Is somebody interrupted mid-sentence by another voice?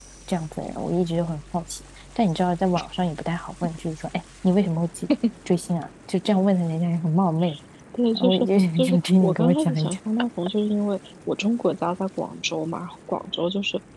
Yes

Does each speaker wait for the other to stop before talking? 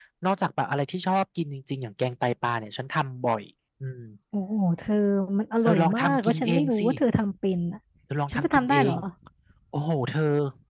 No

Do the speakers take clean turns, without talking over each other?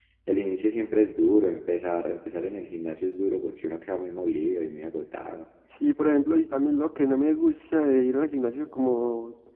Yes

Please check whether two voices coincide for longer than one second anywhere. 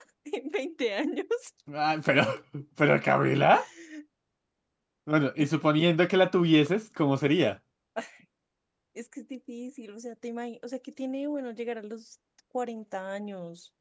No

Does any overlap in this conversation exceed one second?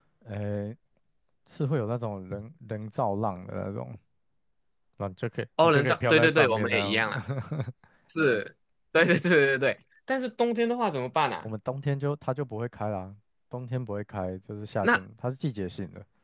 Yes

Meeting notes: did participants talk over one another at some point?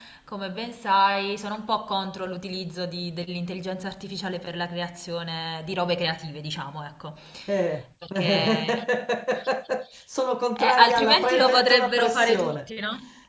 Yes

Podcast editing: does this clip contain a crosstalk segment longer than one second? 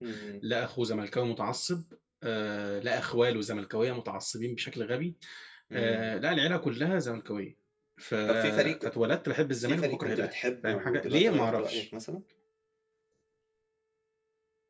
Yes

